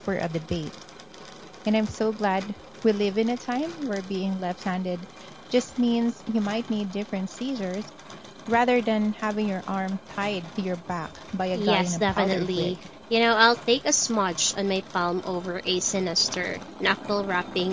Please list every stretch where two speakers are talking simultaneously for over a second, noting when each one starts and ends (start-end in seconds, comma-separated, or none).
11.5-12.7